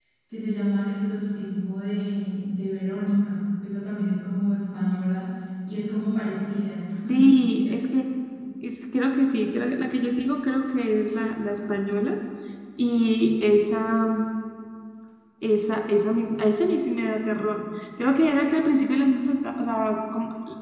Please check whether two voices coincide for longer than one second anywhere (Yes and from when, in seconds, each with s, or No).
No